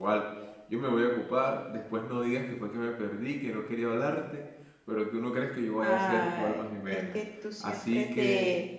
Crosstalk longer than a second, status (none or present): present